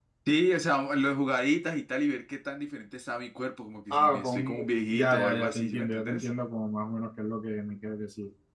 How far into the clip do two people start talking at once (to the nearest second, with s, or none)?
4 s